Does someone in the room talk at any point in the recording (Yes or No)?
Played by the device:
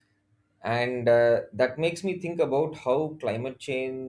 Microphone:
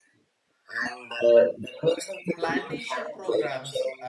Yes